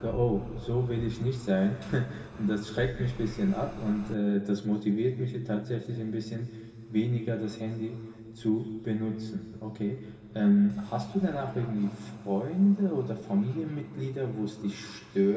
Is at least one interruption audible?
No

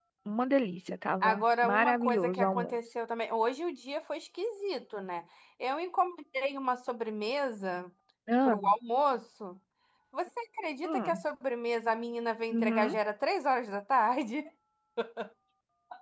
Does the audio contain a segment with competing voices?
Yes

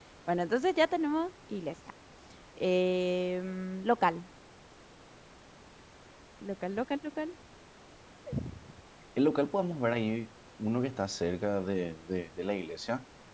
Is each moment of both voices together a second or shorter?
Yes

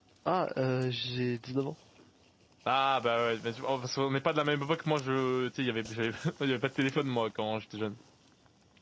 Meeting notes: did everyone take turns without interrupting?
Yes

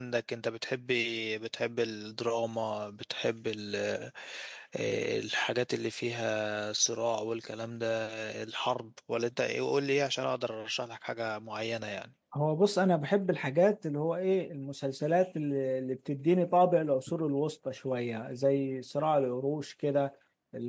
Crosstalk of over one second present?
No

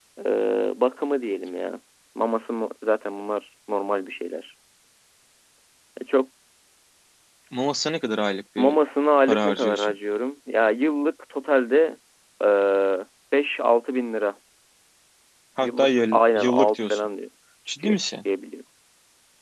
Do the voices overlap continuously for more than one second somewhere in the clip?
Yes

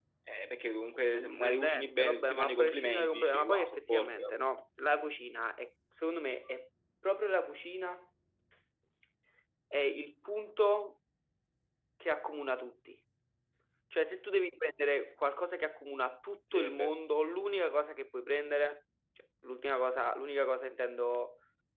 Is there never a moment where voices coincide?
No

